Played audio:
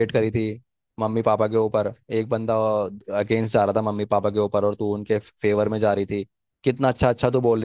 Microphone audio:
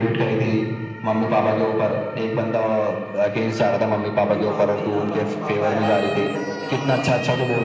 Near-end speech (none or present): present